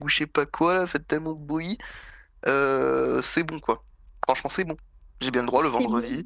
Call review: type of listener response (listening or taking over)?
listening